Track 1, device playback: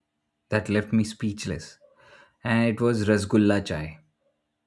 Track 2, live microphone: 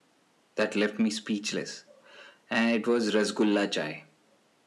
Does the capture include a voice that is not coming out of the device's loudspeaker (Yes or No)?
No